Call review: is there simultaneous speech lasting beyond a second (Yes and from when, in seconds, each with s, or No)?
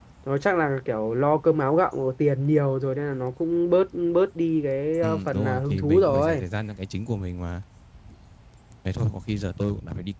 Yes, from 5.0 s